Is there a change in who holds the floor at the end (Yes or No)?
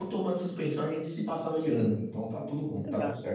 Yes